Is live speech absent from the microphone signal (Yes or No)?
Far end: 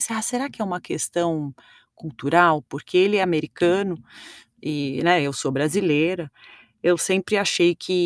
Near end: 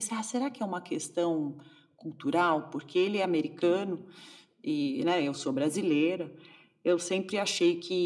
Yes